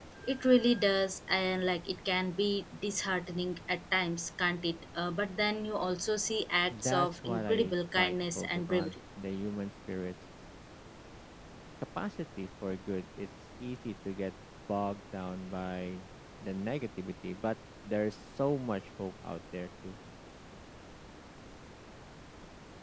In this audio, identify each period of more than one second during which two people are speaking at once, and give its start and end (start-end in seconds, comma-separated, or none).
6.7-8.9